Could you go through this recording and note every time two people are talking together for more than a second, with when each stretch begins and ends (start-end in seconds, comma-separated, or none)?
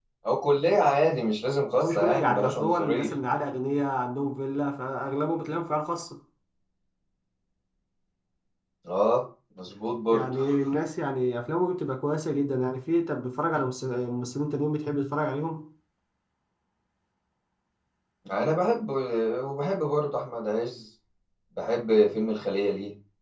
1.8-3.2